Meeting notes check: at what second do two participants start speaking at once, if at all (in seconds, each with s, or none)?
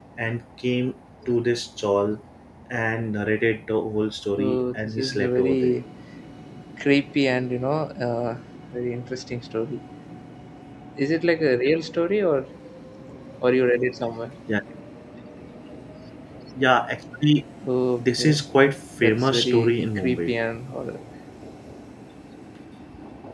4.4 s